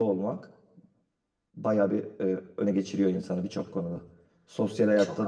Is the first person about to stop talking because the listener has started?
No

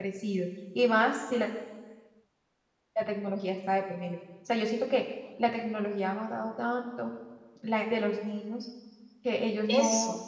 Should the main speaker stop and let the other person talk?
No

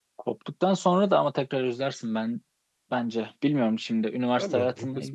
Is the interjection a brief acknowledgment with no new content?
No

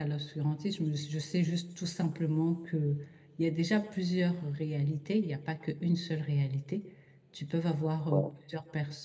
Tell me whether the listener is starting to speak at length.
No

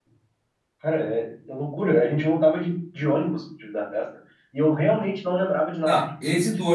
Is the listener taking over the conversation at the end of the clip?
Yes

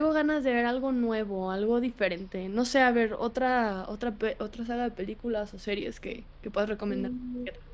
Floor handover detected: Yes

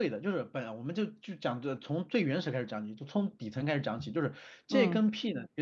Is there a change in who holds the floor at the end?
No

